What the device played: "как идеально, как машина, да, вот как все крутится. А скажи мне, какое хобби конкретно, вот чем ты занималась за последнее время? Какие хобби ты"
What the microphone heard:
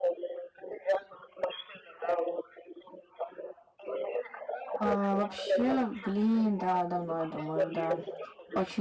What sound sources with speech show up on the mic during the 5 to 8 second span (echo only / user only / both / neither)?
both